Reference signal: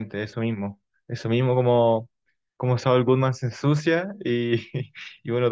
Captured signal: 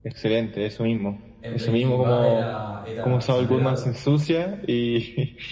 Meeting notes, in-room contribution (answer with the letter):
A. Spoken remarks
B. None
A